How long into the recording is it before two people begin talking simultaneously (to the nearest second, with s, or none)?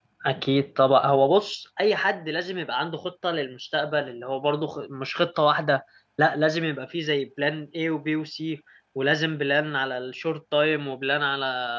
none